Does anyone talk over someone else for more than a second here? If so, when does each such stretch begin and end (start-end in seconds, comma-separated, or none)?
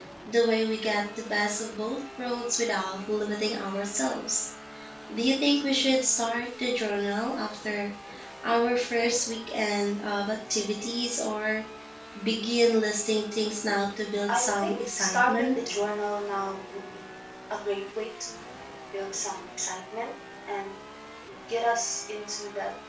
14.3-15.6